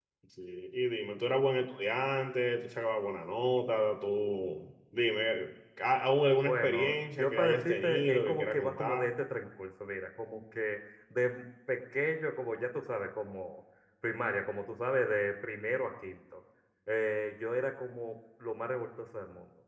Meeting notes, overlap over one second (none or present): present